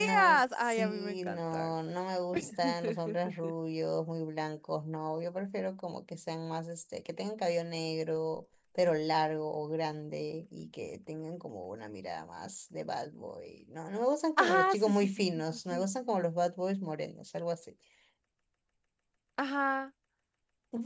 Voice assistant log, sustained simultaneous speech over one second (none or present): present